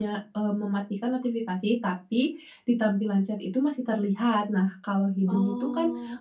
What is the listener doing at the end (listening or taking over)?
listening